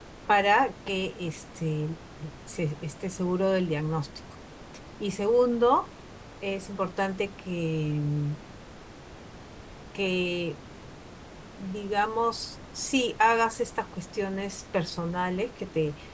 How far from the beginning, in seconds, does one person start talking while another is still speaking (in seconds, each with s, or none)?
none